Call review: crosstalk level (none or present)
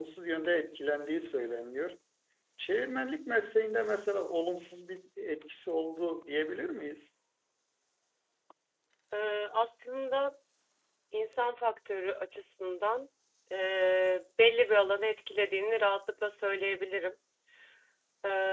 none